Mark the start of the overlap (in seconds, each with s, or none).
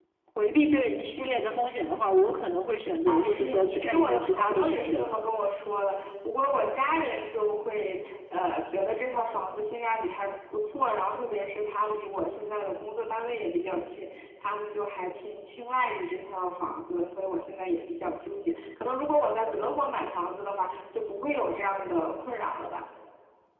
3.1 s